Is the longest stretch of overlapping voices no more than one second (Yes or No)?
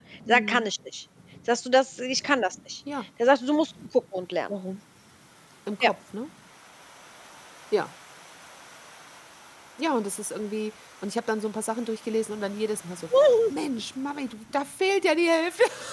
Yes